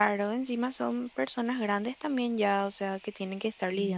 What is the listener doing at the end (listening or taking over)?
taking over